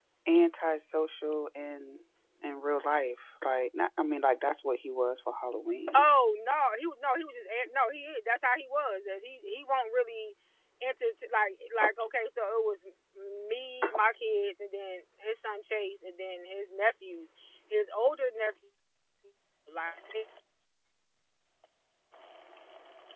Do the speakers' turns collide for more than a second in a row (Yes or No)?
No